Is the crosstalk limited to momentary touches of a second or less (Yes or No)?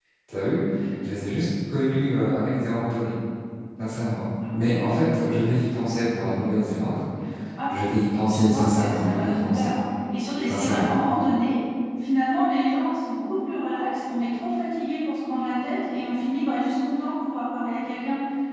No